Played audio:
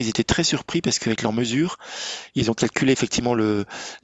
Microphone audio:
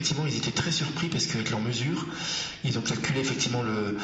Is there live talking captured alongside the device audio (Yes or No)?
No